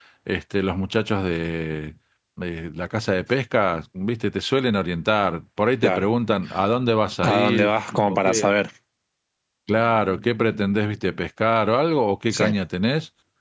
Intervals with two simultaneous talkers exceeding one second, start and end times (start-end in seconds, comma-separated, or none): 7.2-8.5